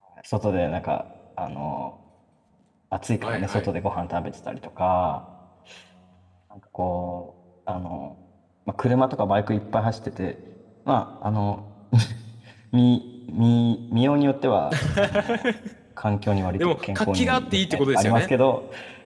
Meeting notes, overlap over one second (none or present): present